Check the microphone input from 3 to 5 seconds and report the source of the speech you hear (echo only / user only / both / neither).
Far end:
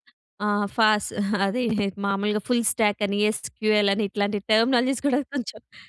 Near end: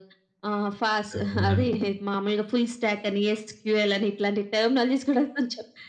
echo only